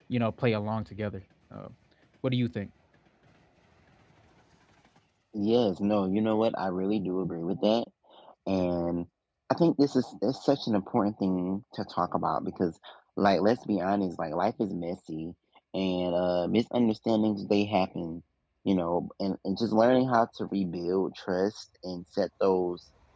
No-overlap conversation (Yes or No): Yes